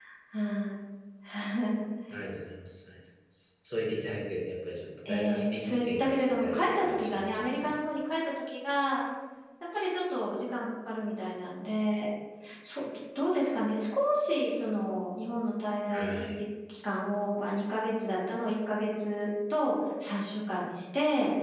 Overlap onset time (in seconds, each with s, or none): 5.0 s